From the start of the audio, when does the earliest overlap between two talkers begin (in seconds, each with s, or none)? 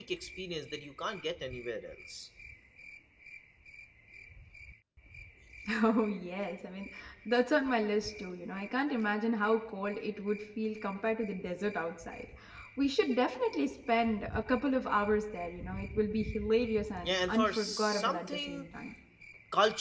17.0 s